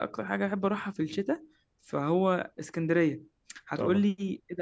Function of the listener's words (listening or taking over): listening